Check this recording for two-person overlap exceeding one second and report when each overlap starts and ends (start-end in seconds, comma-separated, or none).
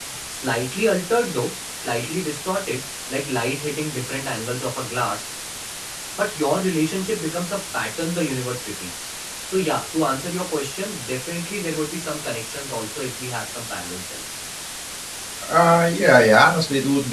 none